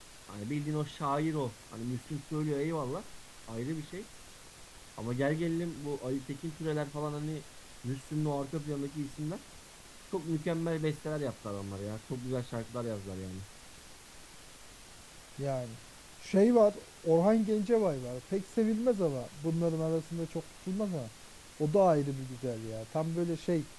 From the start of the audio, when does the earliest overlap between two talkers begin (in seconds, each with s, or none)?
none